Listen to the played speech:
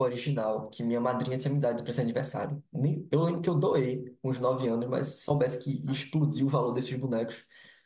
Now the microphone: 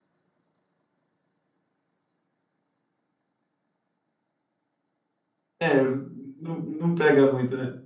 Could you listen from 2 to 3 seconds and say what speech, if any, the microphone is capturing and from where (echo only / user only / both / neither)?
neither